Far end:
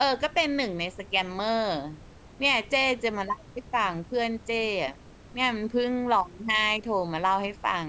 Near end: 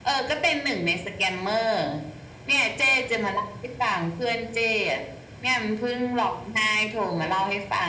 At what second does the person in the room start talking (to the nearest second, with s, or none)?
none